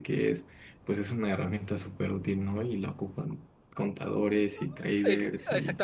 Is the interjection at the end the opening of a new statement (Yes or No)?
Yes